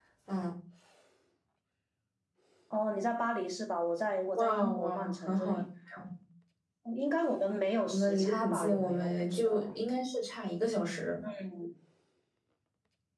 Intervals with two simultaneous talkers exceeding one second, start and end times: 4.3-5.6, 7.9-9.7

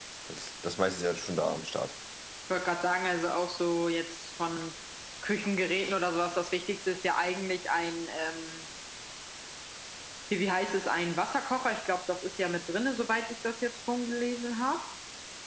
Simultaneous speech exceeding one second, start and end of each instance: none

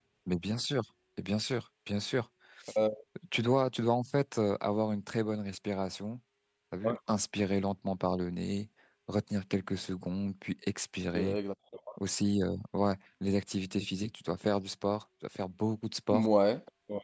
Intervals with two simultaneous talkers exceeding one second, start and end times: none

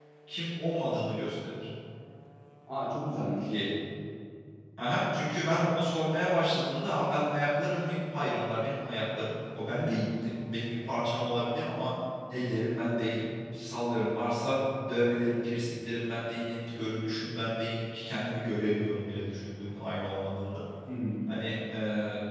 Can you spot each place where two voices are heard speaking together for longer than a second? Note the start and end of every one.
none

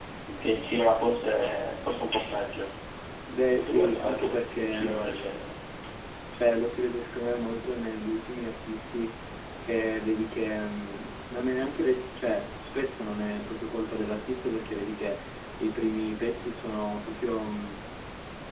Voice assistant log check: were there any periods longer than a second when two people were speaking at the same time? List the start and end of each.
3.5-5.4

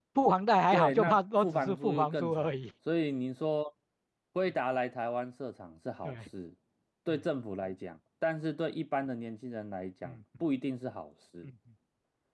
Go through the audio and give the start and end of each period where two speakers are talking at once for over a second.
0.7-2.6

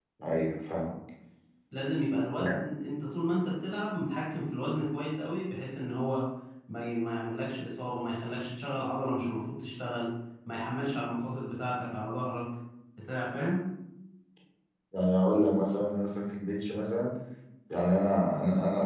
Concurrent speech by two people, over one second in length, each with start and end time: none

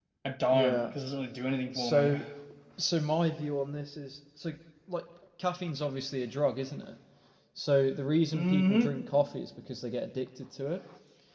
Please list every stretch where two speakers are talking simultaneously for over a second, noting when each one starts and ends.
none

